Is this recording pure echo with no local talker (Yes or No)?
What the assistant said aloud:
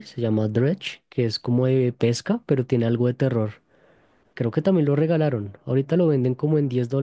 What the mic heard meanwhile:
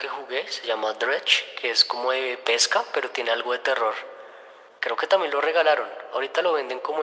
Yes